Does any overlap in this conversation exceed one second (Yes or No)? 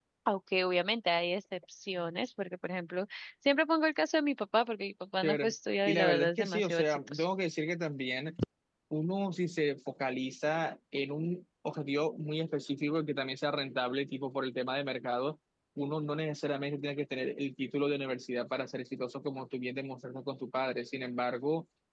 Yes